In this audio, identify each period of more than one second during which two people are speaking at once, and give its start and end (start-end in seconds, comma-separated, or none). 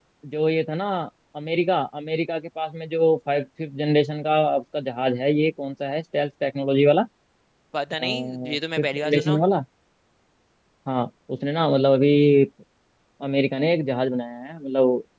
8.1-9.4